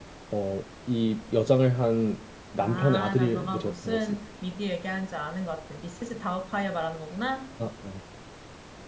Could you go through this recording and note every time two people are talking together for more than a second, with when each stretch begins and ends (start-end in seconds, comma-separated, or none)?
2.6-4.2